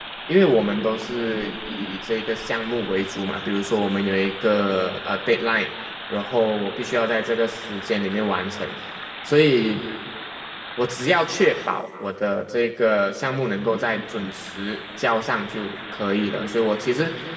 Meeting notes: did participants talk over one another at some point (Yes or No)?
No